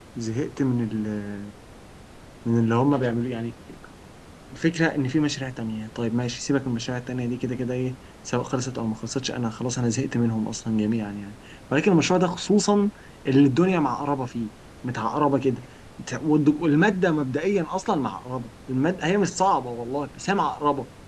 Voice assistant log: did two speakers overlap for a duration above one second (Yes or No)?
No